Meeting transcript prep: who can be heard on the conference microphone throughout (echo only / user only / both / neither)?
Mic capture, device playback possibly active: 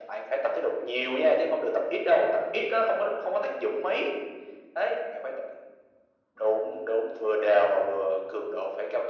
echo only